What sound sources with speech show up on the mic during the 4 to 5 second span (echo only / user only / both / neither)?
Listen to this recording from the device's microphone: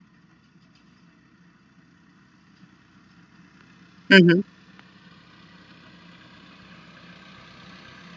user only